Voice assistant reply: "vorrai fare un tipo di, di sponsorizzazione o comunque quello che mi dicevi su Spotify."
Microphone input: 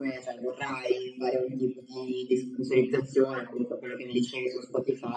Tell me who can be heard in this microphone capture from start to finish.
echo only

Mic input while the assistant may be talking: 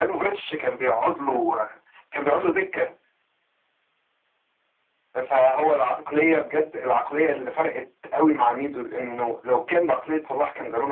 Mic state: echo only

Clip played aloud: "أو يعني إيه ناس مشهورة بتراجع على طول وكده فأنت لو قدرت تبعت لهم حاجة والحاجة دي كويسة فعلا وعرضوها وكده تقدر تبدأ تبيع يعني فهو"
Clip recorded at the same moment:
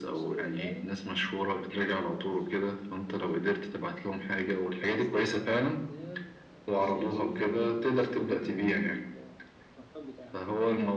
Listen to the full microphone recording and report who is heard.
both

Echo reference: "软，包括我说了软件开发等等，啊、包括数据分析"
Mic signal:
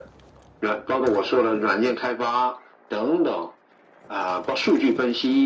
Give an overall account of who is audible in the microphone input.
echo only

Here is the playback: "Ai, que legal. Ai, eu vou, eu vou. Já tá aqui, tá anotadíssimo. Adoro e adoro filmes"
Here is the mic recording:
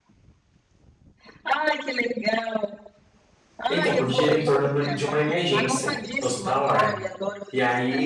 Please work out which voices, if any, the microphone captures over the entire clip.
both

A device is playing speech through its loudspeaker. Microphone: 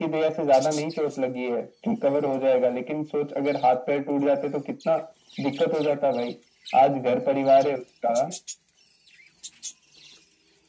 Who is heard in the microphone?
echo only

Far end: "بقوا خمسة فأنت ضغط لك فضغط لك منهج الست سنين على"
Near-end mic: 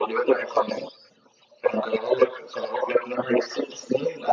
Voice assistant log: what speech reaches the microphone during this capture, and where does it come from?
echo only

